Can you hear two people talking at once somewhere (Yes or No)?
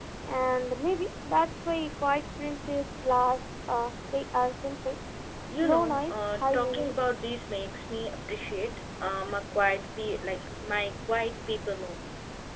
Yes